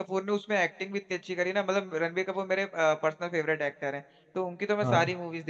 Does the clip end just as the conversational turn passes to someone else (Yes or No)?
No